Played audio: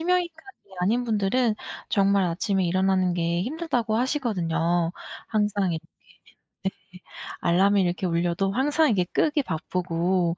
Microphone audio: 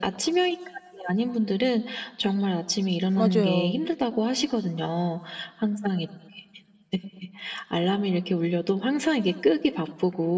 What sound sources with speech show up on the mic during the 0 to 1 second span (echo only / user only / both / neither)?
echo only